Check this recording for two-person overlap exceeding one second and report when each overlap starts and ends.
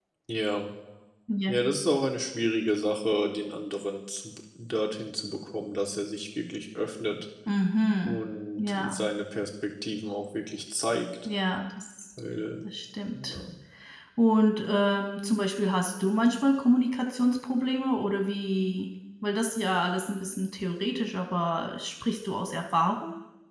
none

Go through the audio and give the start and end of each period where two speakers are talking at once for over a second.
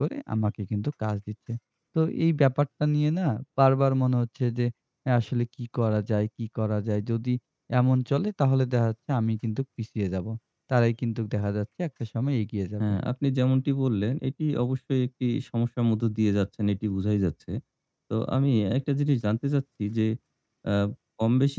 none

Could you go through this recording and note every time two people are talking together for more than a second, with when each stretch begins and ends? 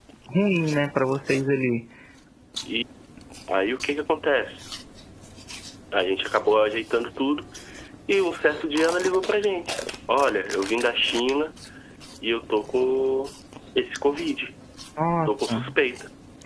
none

